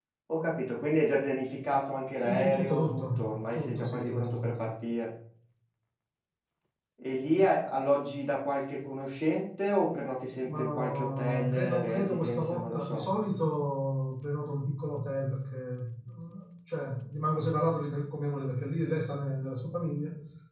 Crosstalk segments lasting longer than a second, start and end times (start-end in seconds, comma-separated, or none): 2.2-4.6, 10.5-13.0